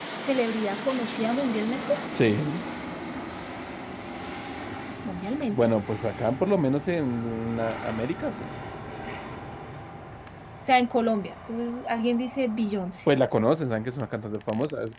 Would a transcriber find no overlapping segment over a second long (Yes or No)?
Yes